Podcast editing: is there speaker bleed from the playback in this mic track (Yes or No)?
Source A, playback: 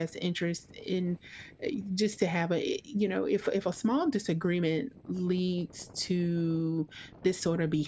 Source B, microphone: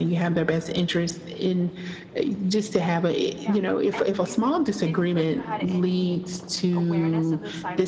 Yes